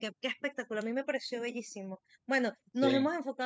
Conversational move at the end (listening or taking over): listening